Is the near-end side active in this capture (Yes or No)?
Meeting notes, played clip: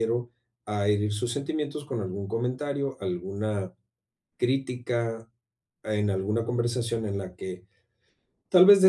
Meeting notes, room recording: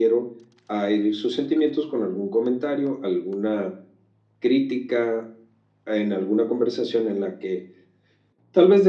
No